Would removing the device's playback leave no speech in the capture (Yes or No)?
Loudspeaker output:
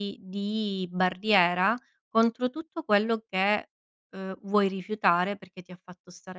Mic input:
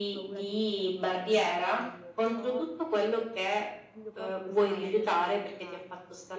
No